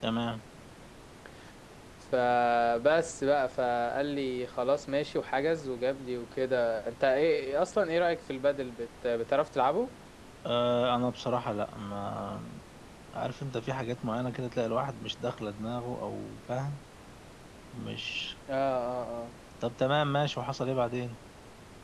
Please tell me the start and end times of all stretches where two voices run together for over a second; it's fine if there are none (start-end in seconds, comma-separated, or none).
none